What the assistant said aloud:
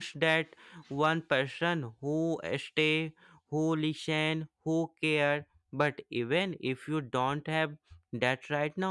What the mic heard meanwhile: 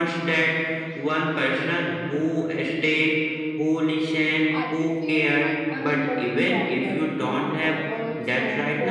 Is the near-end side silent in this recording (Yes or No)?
No